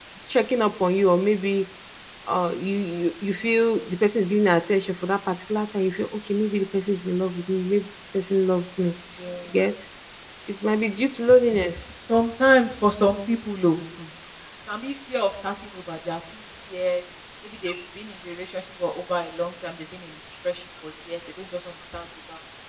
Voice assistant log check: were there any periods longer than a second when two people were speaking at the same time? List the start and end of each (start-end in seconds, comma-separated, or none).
none